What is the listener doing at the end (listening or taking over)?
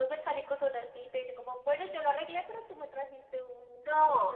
taking over